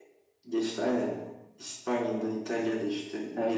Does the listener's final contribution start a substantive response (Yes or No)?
No